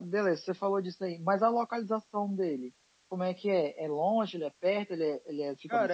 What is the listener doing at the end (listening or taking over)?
taking over